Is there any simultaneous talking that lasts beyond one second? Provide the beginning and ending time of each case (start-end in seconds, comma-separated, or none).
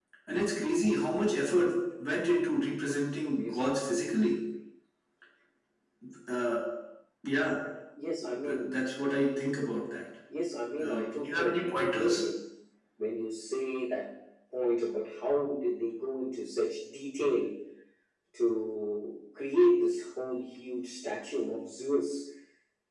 10.8-12.2